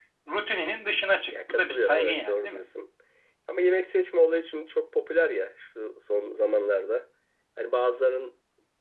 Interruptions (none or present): present